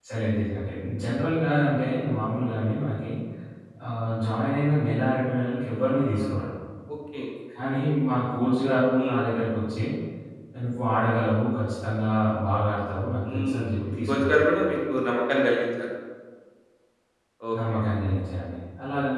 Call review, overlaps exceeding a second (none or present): present